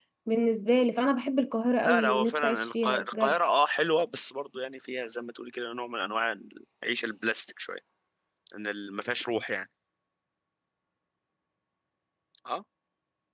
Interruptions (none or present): present